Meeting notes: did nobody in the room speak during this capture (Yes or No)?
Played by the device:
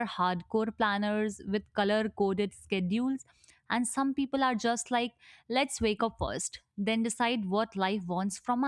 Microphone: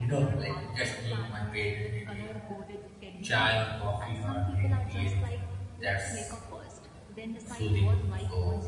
No